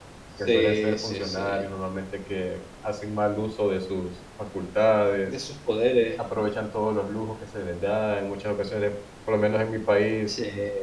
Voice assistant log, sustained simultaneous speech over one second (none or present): present